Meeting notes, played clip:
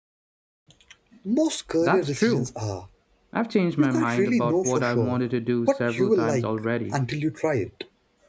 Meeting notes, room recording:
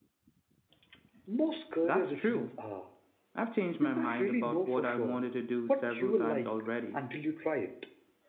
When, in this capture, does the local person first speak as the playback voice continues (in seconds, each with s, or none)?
none